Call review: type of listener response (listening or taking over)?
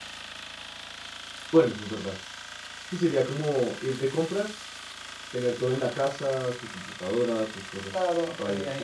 taking over